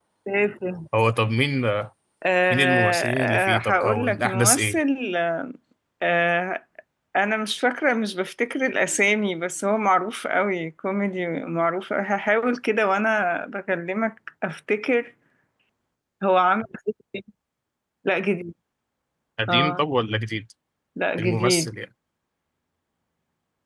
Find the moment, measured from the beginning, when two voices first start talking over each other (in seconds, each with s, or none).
2.5 s